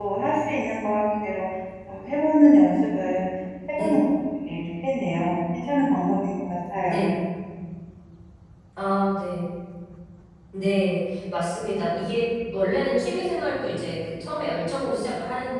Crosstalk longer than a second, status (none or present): none